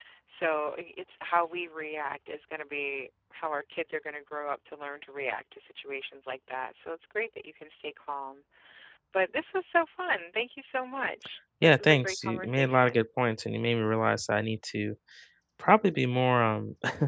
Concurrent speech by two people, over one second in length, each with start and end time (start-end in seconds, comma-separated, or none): 11.6-13.1